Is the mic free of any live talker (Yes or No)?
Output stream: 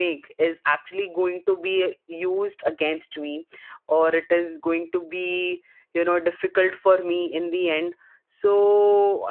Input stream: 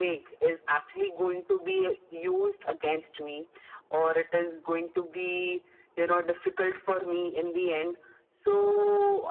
Yes